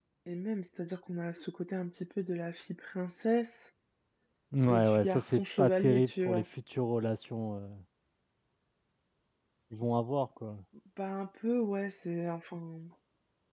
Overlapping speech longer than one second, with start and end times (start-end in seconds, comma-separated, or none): 4.7-6.4